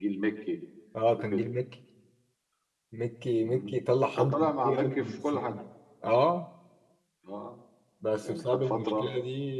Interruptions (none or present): present